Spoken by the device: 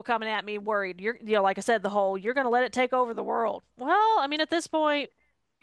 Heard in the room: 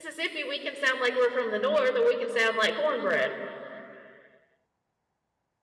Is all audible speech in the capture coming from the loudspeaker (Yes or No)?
No